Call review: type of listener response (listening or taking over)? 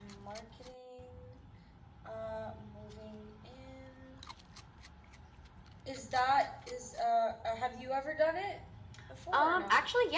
taking over